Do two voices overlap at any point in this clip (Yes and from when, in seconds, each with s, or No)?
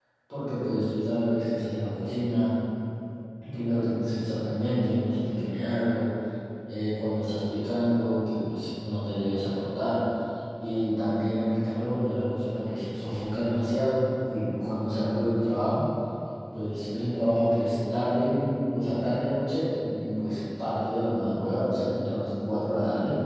No